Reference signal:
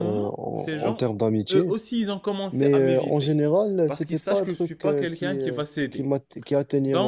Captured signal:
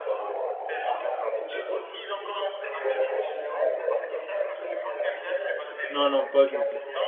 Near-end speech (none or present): present